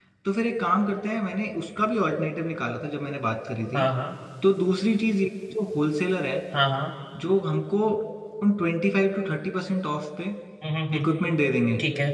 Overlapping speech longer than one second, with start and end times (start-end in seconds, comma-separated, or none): none